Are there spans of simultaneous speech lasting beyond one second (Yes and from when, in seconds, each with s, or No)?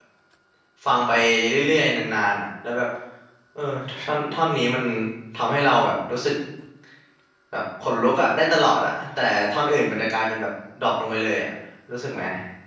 No